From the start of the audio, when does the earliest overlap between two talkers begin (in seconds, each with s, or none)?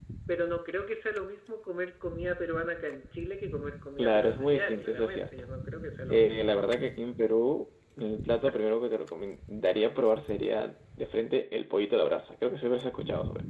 4.0 s